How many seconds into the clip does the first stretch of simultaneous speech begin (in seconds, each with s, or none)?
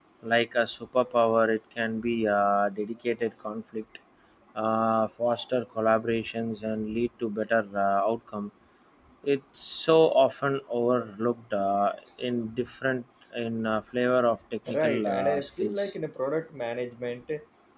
14.7 s